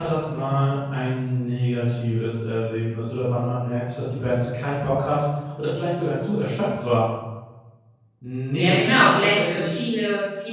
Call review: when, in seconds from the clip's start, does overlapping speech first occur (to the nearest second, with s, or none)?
9 s